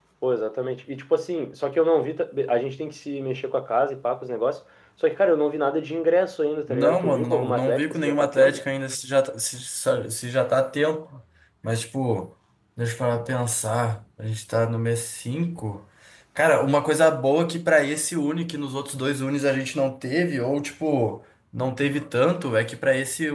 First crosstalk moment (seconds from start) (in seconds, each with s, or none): 6.7 s